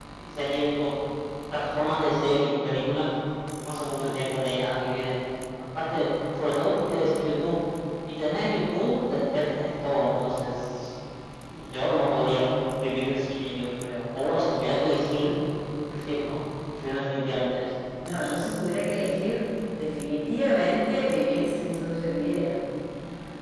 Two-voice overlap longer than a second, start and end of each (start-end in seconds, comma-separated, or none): none